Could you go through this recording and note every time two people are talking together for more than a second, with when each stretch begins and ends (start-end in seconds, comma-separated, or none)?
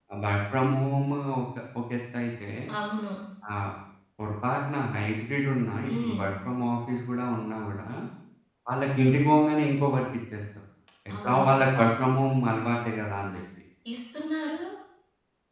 none